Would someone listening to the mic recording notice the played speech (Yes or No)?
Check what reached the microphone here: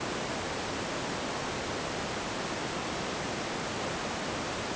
No